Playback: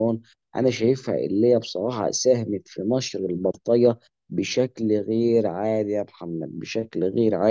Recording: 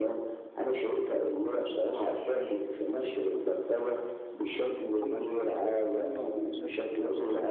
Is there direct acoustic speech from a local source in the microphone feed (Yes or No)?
Yes